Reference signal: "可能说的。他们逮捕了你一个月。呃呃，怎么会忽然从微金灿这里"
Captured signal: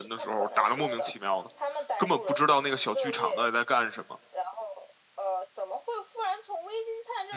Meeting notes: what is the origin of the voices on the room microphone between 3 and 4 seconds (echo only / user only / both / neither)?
both